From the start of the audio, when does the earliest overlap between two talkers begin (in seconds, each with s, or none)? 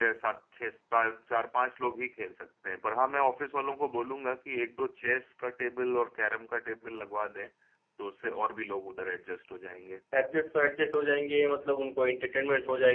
none